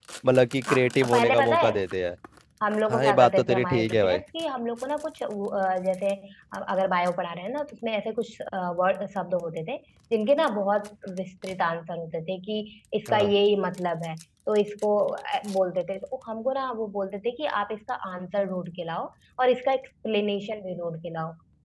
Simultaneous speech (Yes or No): Yes